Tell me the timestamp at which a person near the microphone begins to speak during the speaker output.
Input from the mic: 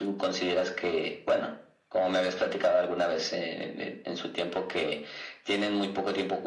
none

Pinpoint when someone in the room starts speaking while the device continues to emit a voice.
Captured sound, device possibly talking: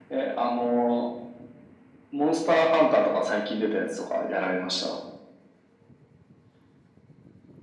none

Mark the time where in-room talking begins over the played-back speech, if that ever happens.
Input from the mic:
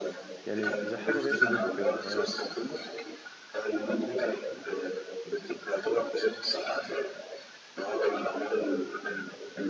0.4 s

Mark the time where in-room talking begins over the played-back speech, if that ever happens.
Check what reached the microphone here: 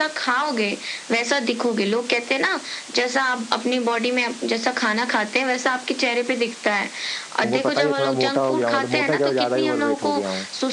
7.4 s

